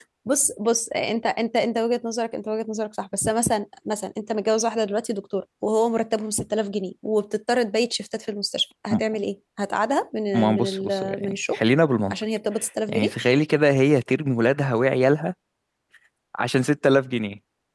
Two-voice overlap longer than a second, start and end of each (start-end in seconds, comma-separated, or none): 10.3-11.6